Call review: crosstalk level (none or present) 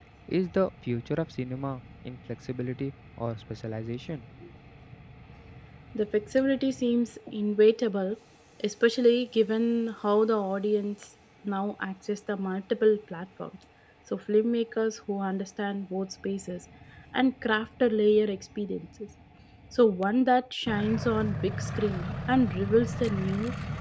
none